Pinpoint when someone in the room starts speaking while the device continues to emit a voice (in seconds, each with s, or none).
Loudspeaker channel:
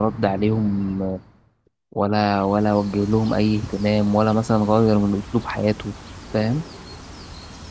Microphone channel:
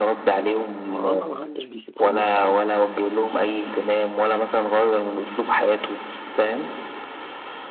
0.8 s